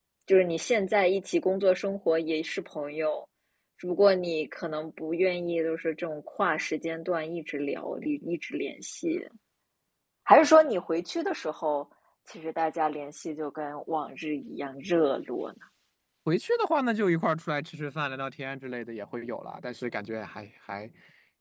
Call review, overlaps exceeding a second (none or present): none